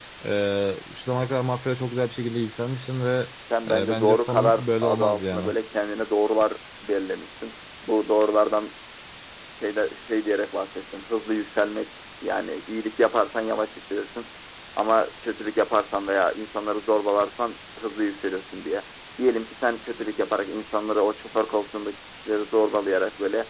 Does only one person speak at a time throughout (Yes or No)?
No